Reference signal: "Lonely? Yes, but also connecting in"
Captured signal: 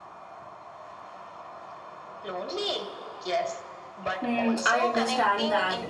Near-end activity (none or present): present